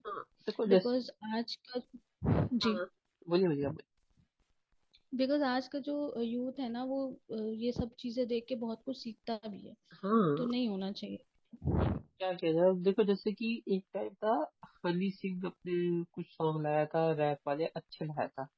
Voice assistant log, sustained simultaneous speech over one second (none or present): none